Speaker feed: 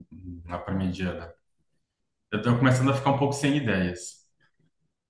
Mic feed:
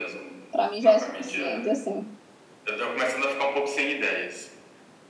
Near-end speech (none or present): present